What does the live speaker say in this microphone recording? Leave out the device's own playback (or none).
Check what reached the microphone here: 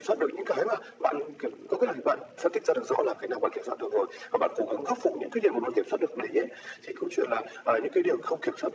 none